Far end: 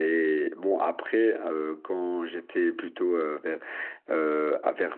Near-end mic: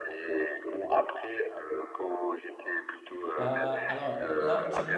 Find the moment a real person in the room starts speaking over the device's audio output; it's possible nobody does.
3.4 s

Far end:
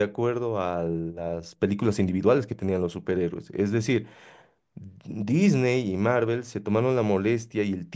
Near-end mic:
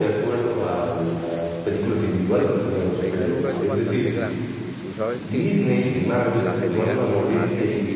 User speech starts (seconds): 2.3 s

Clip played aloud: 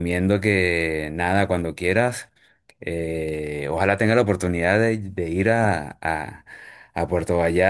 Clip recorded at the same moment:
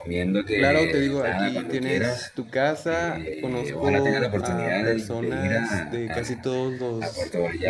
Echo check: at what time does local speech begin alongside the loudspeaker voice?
0.5 s

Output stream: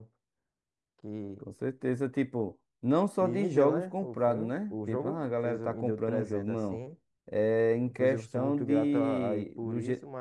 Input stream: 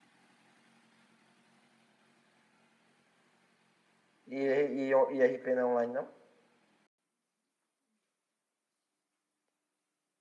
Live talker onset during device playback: 4.3 s

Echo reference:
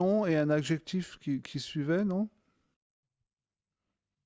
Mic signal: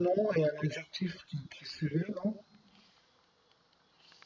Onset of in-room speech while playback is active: none

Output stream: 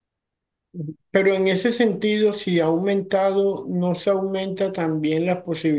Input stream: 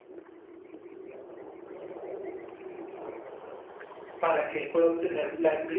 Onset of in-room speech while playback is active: 4.2 s

